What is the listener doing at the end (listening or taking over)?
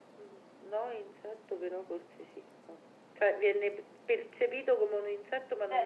taking over